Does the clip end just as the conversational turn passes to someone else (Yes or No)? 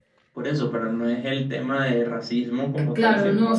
Yes